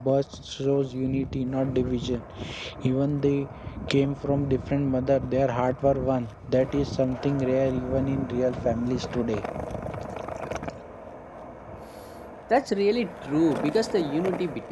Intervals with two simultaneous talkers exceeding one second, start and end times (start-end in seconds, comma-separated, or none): none